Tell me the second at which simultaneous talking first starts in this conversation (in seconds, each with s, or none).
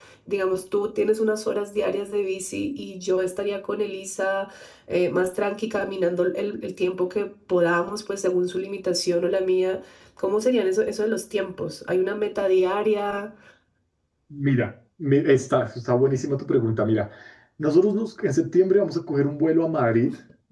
none